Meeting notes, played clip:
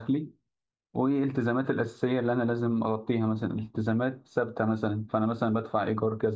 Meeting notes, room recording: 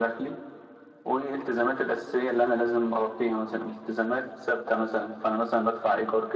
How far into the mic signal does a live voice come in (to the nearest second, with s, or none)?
none